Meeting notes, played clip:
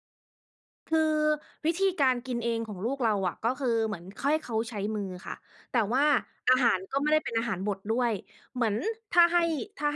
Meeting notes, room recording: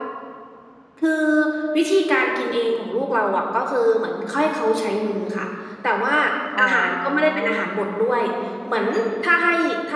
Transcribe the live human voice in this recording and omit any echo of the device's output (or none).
อ๋อ